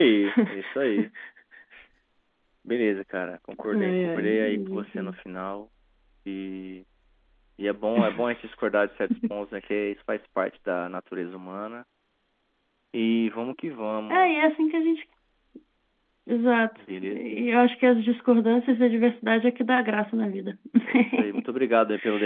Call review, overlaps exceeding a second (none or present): present